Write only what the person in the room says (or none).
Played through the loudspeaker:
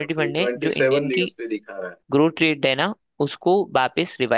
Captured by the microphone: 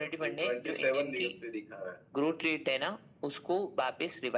none